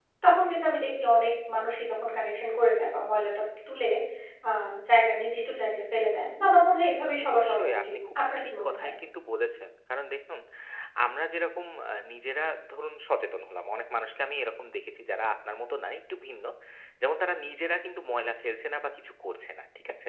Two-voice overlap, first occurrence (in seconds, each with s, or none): 7.2 s